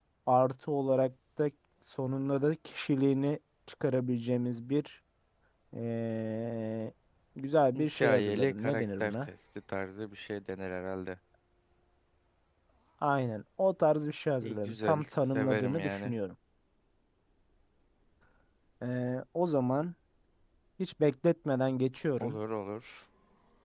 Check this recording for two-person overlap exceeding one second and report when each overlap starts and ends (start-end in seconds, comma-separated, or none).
7.8-9.3, 14.4-16.1